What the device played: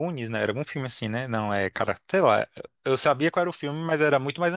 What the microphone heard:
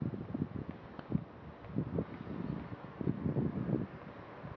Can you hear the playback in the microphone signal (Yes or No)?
No